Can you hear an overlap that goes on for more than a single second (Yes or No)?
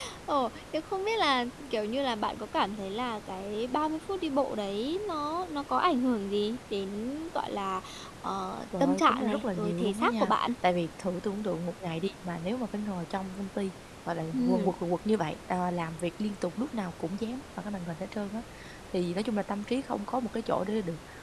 Yes